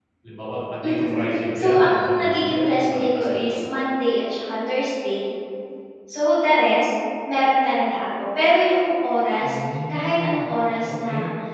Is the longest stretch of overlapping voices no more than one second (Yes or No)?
No